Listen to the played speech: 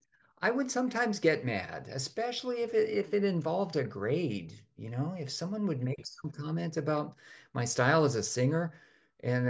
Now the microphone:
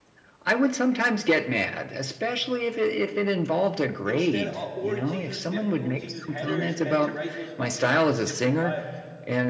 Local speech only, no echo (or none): instead of, or to use different or to use headers and to write those functions in different files,